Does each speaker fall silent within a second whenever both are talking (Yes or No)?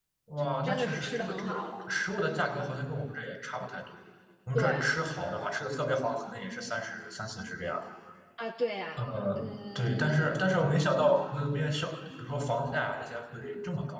No